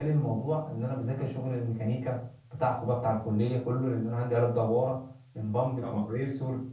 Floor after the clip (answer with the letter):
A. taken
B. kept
B